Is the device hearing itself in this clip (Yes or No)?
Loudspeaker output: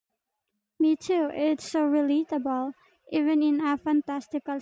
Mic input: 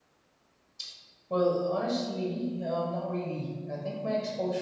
No